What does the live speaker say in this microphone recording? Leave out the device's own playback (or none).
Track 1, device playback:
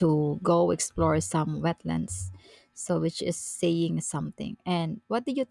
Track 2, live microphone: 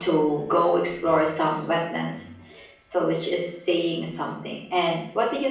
none